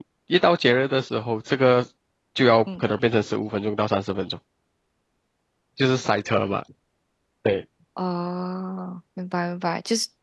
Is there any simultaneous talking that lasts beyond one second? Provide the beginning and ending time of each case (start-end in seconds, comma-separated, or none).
none